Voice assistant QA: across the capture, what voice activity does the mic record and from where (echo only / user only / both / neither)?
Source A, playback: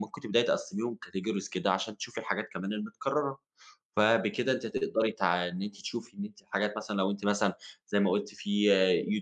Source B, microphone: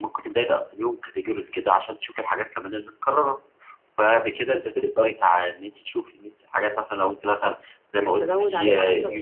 both